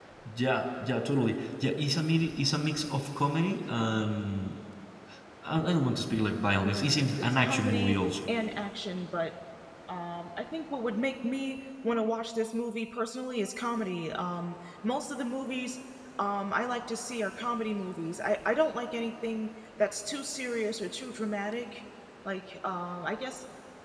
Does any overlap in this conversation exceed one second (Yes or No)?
Yes